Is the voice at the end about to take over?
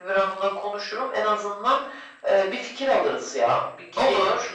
No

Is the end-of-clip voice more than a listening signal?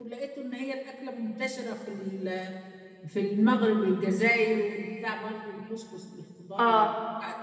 No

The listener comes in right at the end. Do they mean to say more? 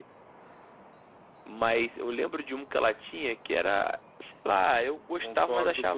Yes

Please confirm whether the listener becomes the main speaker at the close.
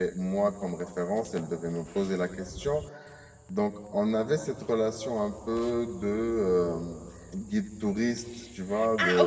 Yes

